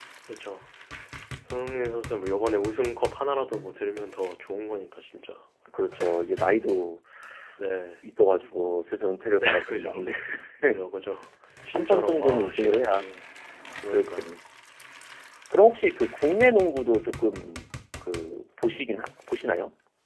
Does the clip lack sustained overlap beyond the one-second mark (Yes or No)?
No